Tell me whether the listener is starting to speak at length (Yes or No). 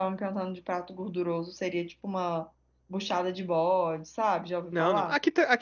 Yes